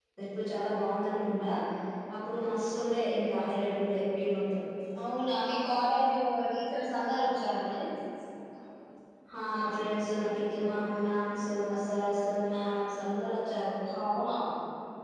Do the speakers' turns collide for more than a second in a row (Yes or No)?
No